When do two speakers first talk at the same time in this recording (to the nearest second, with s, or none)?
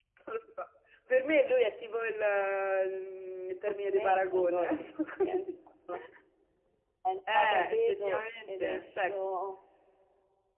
4 s